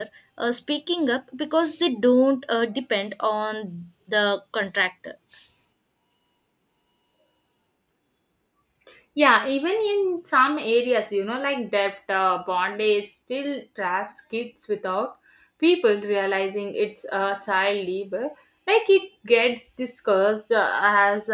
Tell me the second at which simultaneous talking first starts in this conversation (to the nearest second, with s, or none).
none